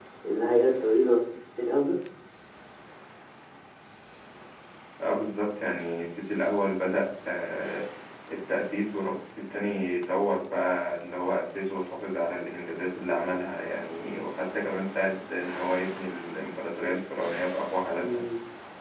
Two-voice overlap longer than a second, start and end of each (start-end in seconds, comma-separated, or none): none